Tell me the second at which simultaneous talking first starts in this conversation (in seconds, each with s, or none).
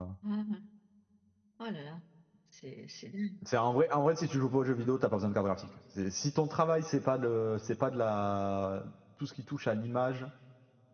none